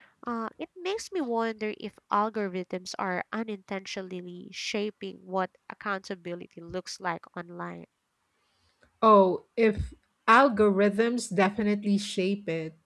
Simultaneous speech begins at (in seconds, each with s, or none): none